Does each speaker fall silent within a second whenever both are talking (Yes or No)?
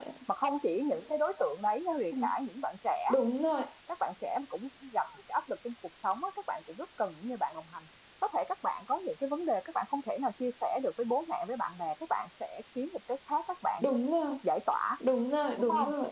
Yes